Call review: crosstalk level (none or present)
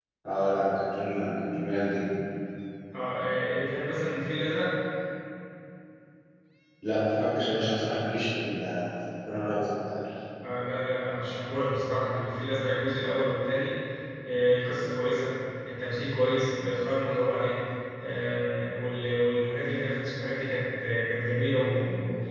none